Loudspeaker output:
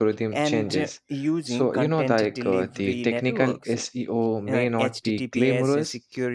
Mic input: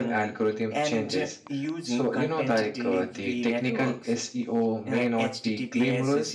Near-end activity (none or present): none